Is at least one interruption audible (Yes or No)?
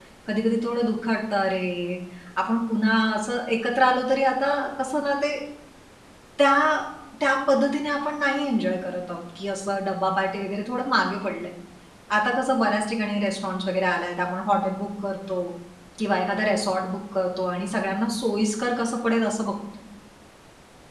No